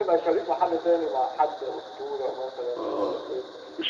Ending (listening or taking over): taking over